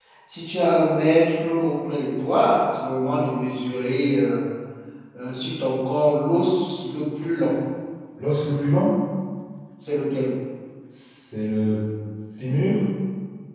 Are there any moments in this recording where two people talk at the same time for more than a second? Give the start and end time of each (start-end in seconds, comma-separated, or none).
none